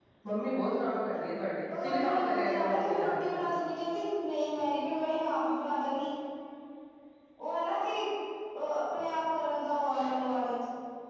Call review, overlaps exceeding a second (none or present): present